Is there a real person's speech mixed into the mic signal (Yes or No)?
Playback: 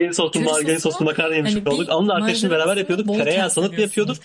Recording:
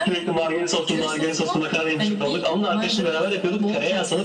No